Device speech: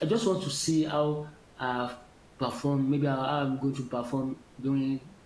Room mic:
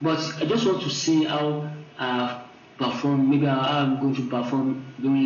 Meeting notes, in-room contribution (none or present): none